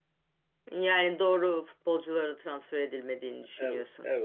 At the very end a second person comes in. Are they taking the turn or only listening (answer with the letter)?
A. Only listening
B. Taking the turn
B